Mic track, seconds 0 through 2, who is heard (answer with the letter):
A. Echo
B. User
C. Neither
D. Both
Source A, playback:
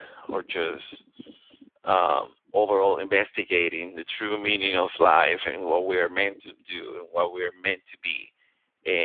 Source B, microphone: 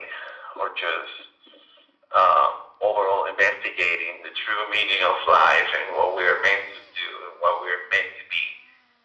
A